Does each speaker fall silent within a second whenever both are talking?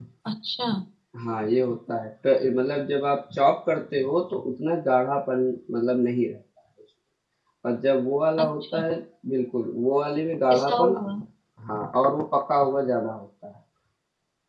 Yes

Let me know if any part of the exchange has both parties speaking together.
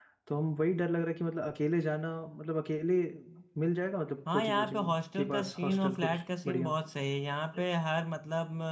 Yes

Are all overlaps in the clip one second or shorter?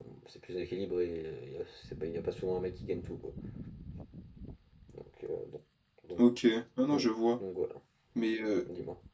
Yes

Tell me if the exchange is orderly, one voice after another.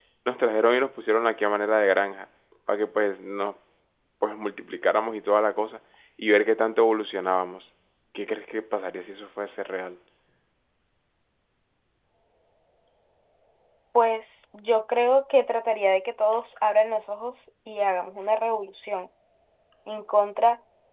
Yes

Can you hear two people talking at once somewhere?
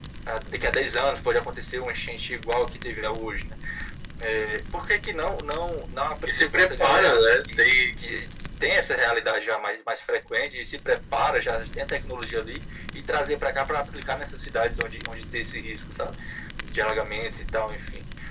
Yes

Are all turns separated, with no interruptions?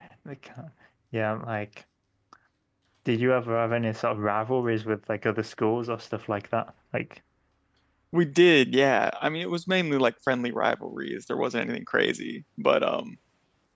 Yes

